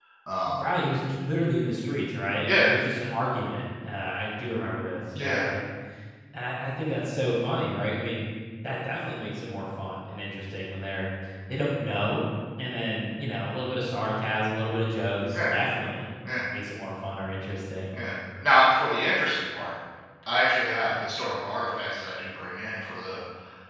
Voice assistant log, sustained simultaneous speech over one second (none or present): none